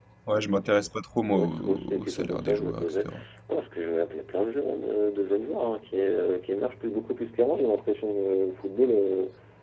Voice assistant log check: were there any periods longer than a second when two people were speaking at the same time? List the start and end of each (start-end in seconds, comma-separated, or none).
1.3-3.1